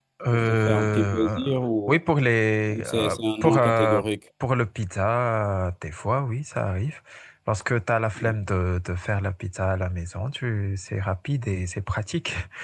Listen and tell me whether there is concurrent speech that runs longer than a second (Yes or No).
Yes